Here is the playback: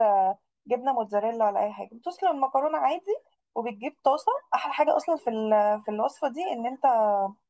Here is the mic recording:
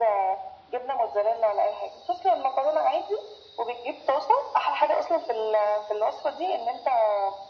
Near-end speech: none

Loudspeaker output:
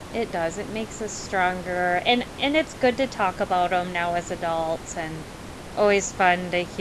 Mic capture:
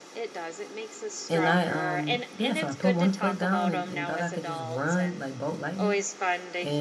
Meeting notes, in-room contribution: present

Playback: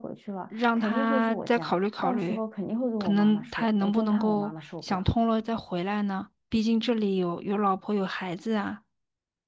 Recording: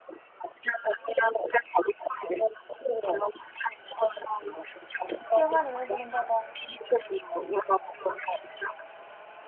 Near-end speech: present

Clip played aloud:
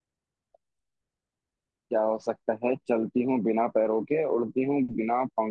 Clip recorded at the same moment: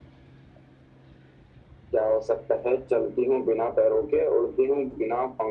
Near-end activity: none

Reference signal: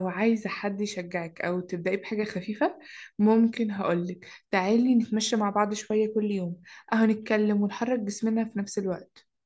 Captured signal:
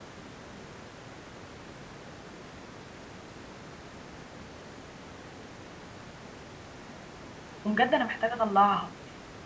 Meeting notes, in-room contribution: present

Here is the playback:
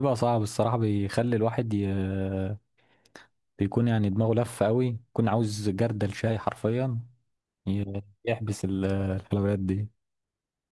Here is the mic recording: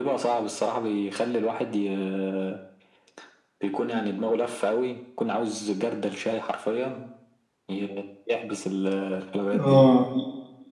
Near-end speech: present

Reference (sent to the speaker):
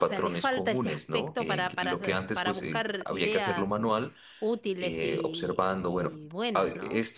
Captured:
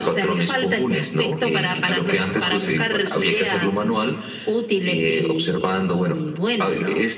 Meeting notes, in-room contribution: present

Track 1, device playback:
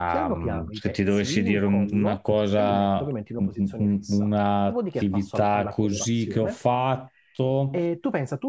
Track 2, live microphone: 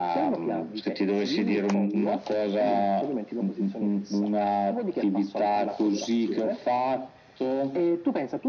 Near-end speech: none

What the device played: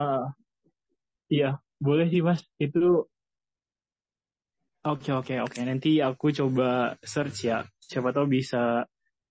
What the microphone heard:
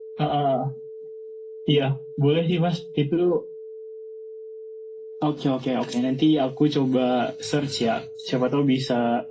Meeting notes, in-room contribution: none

